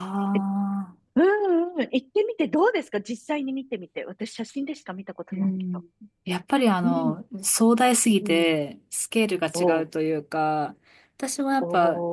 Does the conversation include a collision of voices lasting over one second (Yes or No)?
No